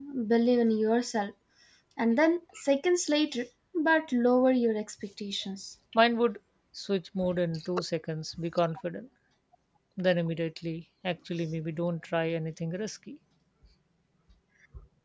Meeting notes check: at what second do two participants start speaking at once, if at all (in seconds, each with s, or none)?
none